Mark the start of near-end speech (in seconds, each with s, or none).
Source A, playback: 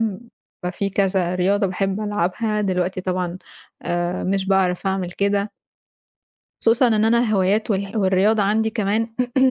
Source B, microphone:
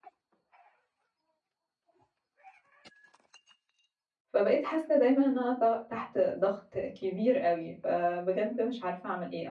4.3 s